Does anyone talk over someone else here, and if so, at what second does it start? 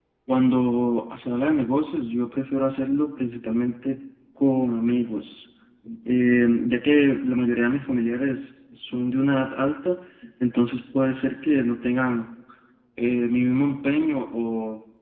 none

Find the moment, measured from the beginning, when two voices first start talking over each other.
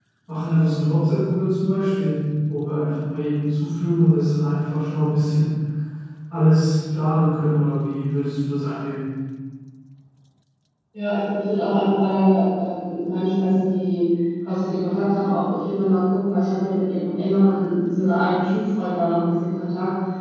none

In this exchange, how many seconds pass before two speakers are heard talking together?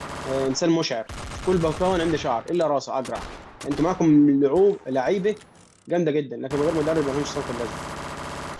none

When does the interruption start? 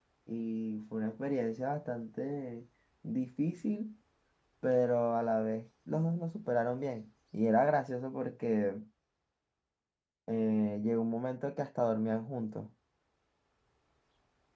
none

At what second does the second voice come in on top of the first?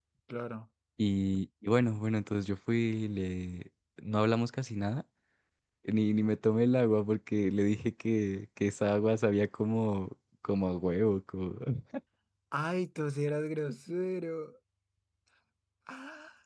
none

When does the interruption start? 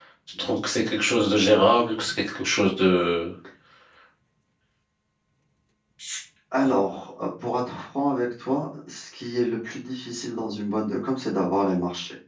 none

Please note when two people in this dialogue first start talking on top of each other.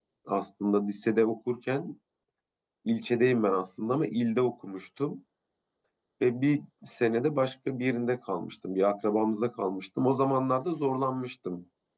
none

